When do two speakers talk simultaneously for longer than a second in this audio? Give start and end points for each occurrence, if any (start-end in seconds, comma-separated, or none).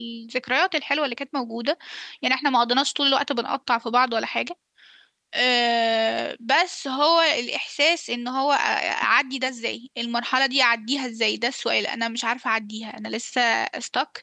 none